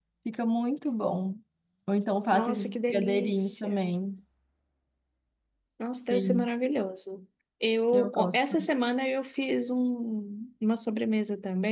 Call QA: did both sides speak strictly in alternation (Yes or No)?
No